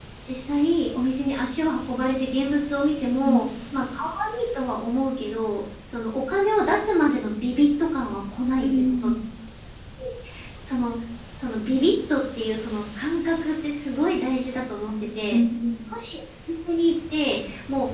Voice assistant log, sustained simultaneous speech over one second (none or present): none